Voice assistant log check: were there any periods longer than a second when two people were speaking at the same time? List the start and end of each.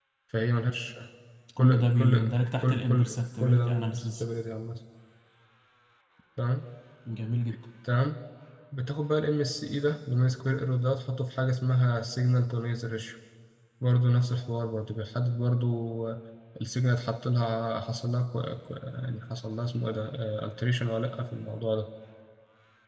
1.6-4.2

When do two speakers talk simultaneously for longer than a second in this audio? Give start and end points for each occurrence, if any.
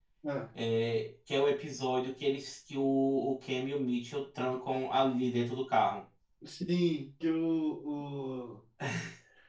none

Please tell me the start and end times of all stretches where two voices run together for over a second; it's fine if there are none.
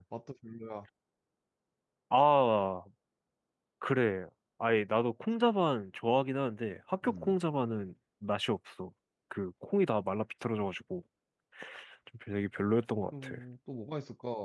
none

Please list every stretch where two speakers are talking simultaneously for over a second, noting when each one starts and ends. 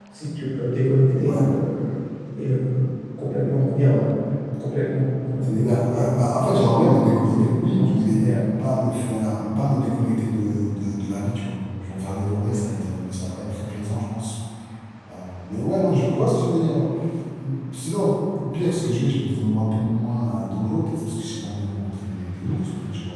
5.4-8.5

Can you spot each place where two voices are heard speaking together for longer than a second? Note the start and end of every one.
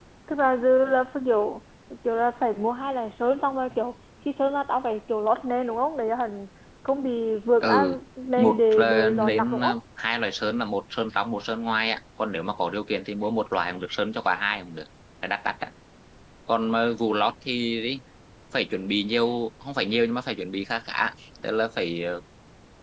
8.4-9.8

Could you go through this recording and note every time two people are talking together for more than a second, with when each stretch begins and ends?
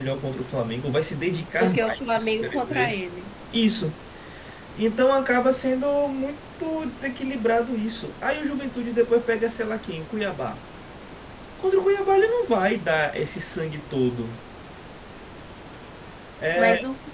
1.6-2.9

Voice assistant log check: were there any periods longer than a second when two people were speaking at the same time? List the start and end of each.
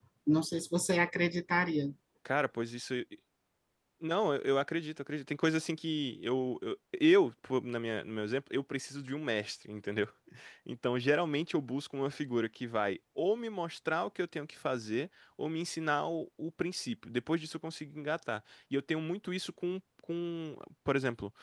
none

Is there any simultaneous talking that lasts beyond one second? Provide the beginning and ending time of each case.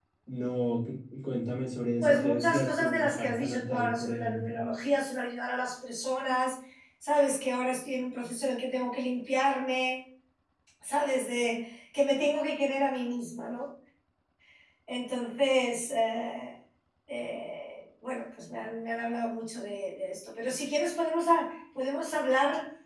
2.0-4.6

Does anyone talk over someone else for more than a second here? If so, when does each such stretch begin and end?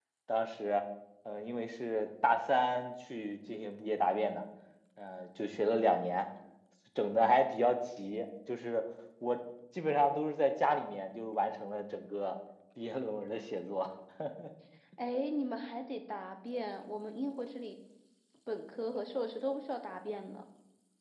none

